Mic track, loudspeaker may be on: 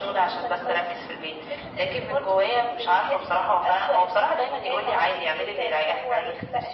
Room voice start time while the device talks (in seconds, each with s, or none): none